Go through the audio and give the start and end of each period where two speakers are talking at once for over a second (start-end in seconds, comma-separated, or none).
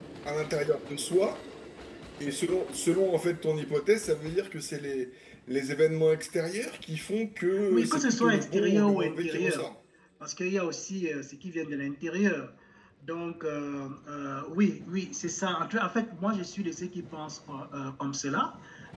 7.7-9.7